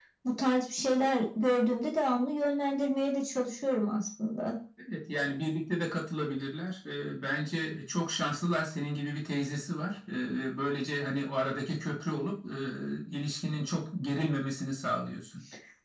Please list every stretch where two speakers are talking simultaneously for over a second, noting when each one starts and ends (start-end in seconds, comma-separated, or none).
none